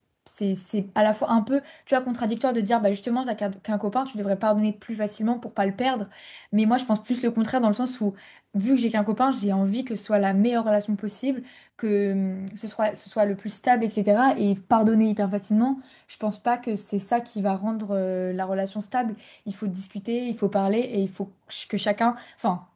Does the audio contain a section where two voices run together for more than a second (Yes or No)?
No